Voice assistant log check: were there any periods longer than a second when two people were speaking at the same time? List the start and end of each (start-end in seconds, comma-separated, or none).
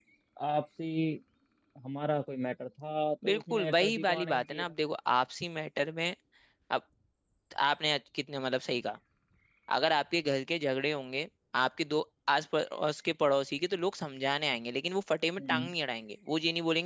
3.2-4.7